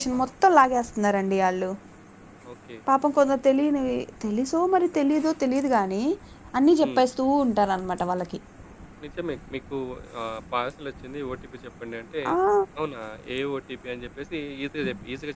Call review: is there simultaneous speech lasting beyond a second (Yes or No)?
No